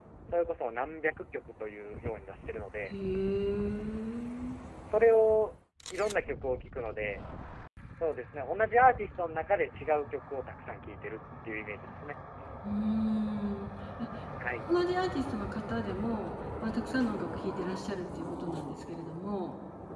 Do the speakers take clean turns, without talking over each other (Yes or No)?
Yes